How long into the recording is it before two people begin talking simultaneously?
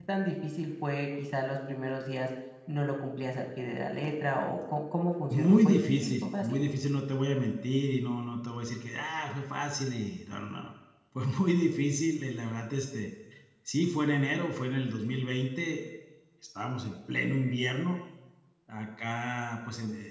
5.3 s

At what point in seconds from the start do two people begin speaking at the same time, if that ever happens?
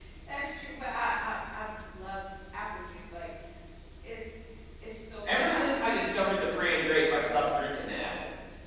5.3 s

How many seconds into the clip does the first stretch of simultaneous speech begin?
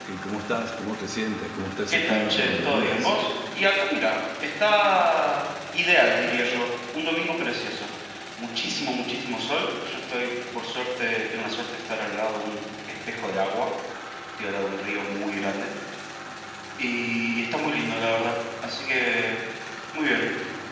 1.9 s

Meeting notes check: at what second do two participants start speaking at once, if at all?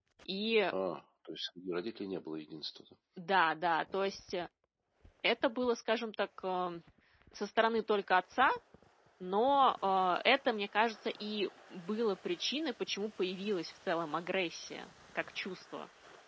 none

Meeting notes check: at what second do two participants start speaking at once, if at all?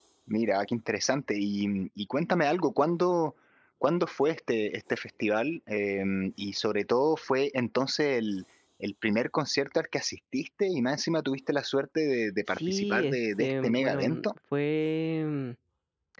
12.5 s

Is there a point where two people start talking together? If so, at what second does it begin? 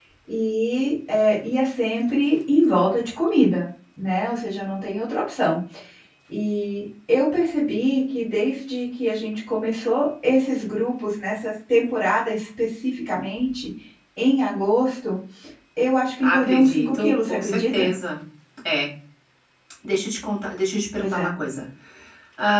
16.2 s

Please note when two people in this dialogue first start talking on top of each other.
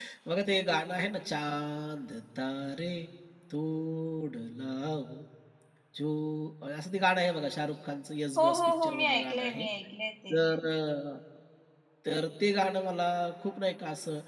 8.4 s

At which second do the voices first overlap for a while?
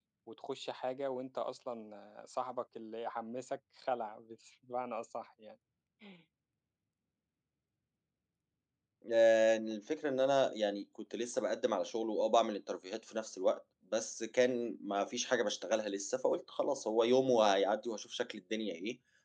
none

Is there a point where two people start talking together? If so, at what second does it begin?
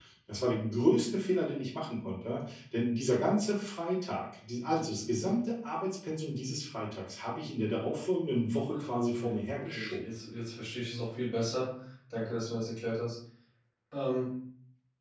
8.7 s

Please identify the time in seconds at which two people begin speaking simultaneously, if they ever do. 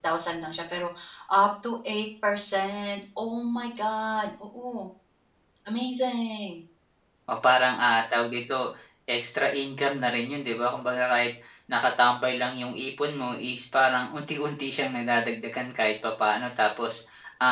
none

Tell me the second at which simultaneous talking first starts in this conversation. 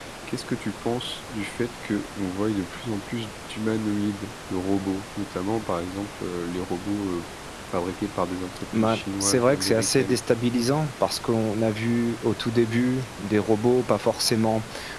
8.7 s

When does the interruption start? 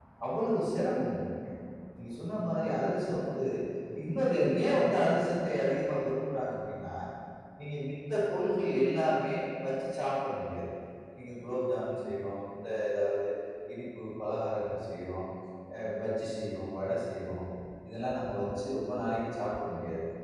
none

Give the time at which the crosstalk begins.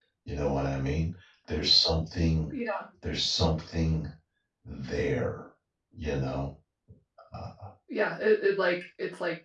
none

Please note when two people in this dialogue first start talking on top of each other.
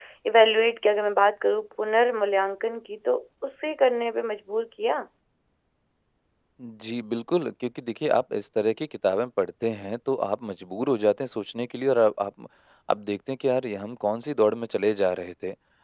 none

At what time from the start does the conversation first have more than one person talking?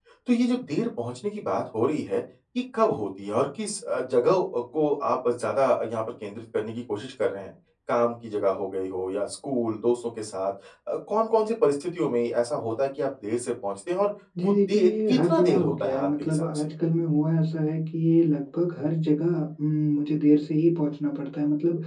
14.4 s

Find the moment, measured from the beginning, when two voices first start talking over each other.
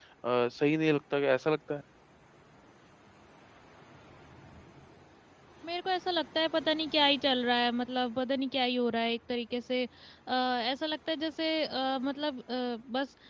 none

